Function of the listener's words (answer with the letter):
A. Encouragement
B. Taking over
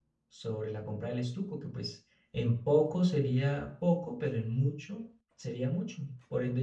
B